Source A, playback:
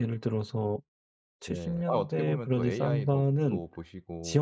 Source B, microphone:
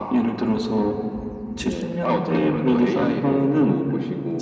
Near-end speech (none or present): none